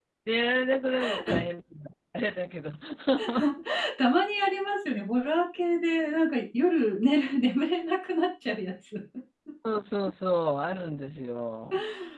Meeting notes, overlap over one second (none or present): none